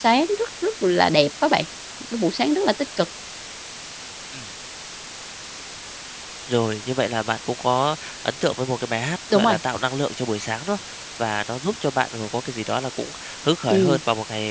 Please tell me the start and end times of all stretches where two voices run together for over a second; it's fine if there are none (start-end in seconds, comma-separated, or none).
none